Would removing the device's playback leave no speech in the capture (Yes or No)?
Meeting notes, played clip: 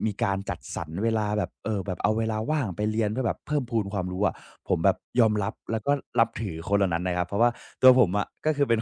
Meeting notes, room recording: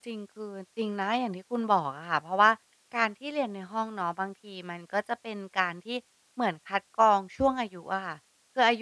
No